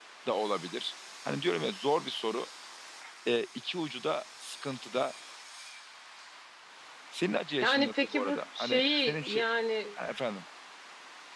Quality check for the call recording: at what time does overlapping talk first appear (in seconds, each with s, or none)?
7.6 s